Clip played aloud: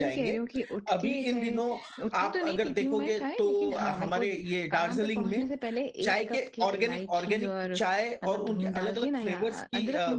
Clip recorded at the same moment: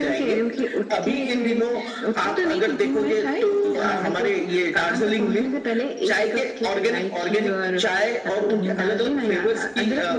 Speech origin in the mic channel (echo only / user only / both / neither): echo only